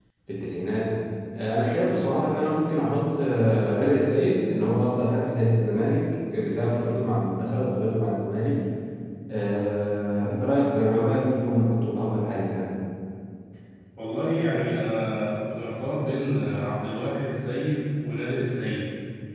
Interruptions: none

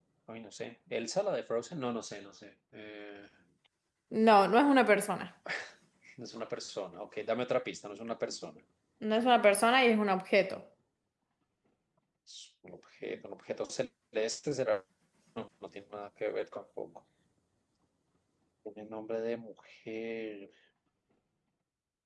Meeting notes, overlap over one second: none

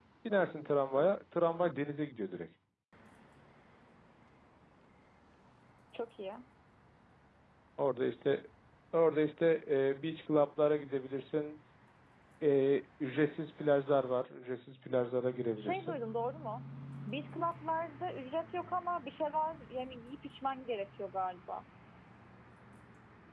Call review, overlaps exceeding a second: none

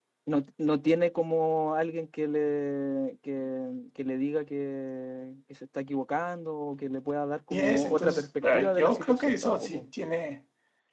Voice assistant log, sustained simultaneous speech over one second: present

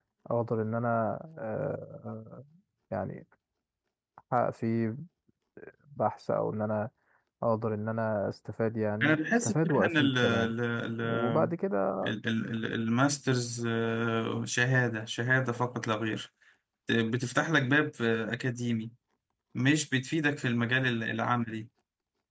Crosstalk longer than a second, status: present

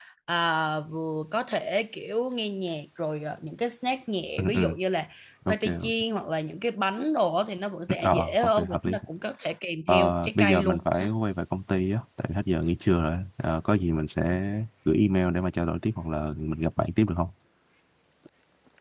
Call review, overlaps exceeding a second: present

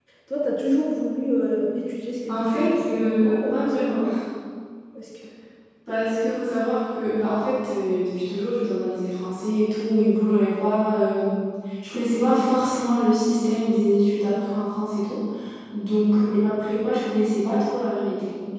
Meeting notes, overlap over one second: present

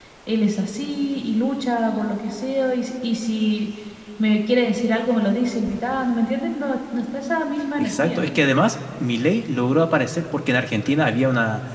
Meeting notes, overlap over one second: none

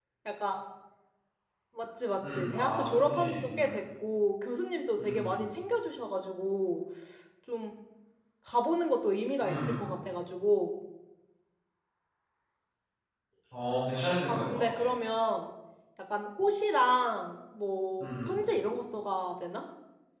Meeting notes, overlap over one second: present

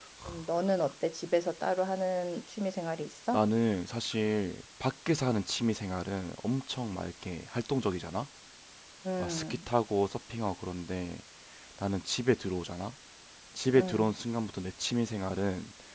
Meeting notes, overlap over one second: none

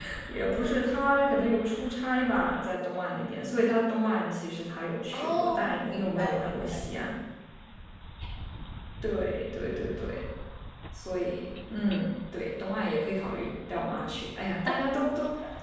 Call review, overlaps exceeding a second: present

